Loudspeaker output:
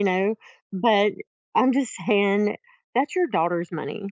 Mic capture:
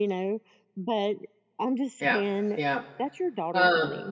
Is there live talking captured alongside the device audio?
Yes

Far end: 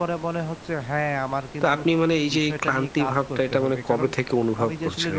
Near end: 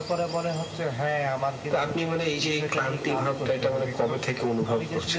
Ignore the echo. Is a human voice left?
No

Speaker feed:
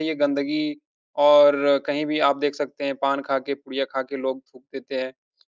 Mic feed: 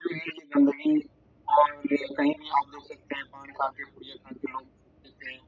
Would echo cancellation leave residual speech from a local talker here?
No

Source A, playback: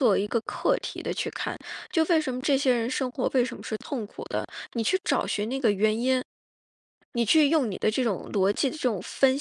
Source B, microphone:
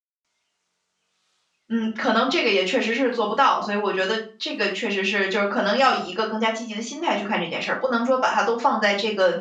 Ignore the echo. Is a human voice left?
Yes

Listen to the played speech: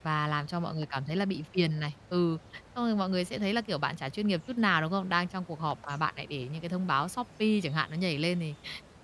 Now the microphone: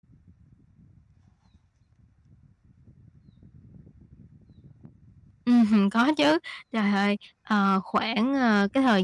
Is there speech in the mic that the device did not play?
Yes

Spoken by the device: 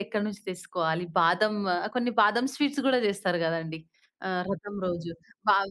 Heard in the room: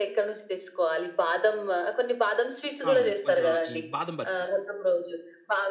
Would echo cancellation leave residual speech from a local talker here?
Yes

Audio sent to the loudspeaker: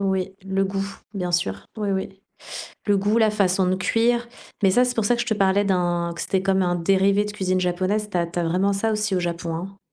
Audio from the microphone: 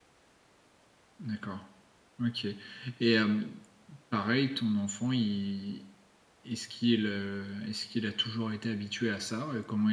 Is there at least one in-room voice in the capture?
Yes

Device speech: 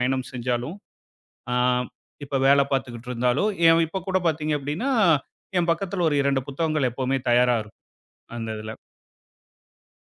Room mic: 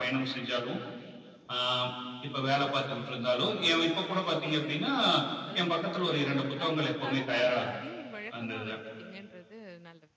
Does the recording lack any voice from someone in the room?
No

